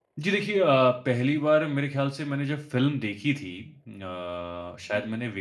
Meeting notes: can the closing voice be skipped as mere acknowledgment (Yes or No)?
Yes